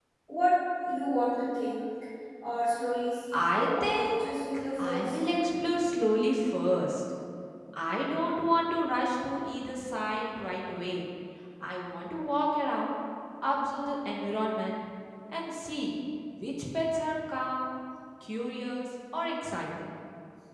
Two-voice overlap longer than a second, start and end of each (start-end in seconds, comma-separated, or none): 3.3-5.2